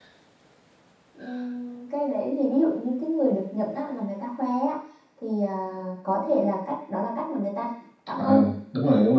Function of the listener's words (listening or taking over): taking over